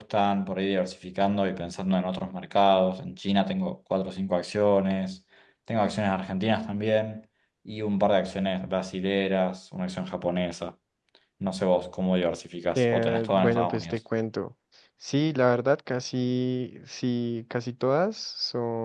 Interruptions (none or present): present